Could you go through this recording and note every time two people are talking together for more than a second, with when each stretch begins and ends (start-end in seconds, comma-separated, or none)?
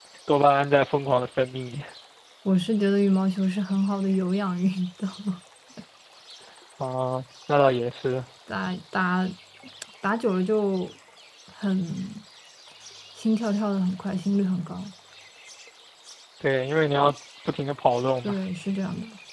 none